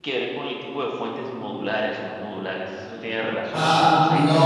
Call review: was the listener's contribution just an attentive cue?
No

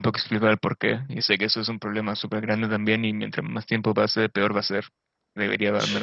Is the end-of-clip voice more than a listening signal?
No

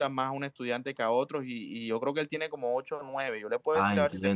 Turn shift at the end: Yes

